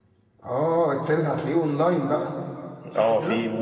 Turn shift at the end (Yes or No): Yes